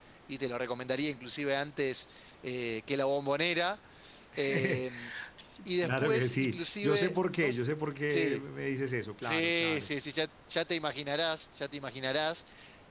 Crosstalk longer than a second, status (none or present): present